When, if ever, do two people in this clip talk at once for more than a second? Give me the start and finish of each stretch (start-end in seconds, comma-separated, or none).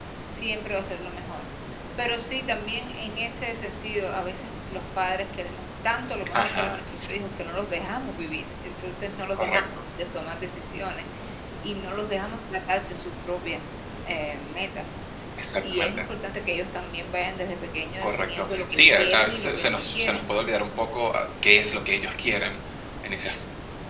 18.0-20.2